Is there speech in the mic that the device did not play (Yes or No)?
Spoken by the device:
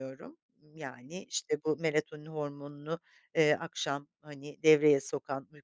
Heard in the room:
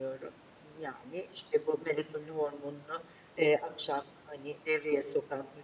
No